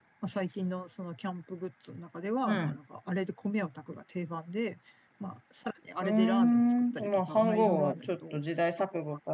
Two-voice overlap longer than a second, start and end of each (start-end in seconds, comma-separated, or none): 6.0-8.4